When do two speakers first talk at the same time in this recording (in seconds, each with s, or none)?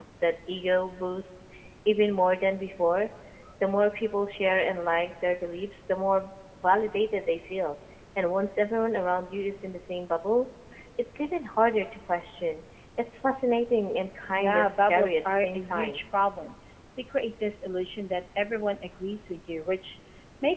14.3 s